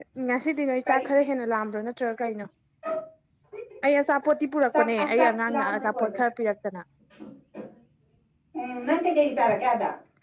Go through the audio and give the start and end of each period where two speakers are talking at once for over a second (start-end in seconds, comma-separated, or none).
4.8-6.2